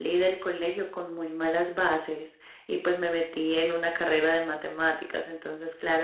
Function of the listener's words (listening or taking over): listening